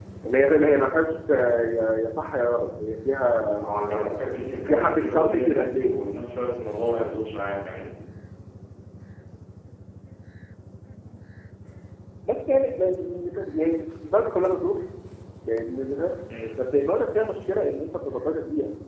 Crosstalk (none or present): present